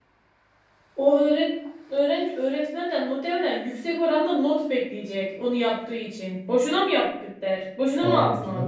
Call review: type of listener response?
taking over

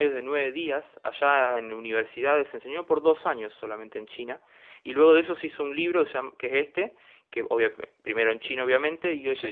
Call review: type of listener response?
listening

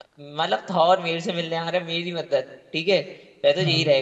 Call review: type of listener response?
listening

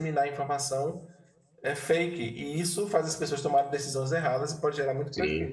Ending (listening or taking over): taking over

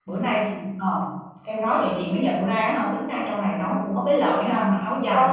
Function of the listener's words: taking over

